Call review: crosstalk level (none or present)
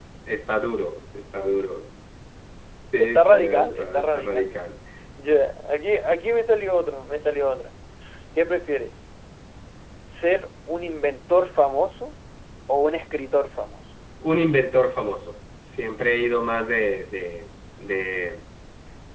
present